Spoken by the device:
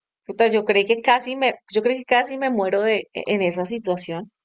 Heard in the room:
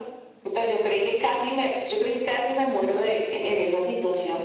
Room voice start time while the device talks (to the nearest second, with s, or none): none